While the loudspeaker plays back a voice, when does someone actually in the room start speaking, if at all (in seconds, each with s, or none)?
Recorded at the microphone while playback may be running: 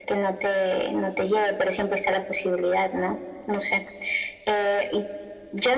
none